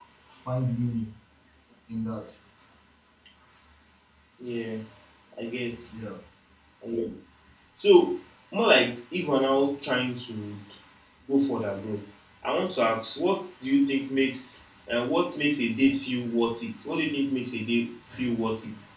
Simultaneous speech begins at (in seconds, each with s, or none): none